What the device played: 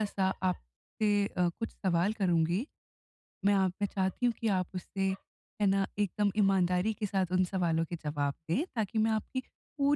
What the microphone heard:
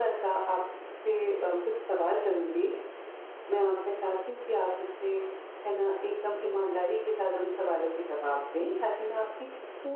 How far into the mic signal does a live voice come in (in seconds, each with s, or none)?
none